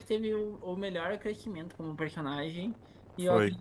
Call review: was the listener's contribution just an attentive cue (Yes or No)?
Yes